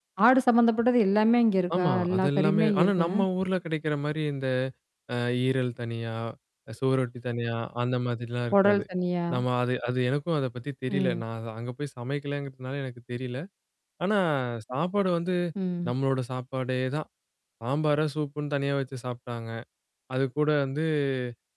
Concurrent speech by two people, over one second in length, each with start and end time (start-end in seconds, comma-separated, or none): 1.7-3.1